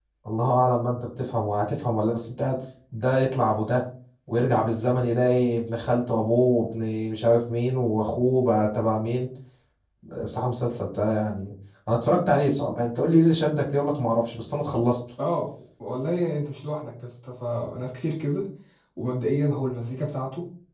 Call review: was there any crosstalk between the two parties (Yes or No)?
No